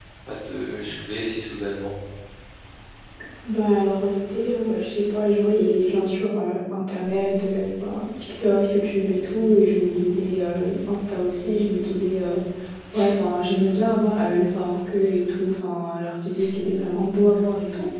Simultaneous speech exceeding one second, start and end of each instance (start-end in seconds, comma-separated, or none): none